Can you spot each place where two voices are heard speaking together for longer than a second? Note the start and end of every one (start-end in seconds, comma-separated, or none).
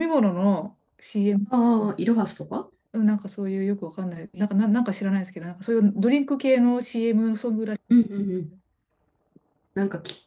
none